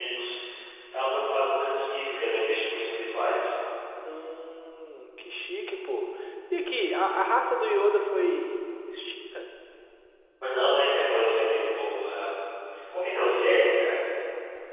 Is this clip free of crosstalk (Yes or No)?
Yes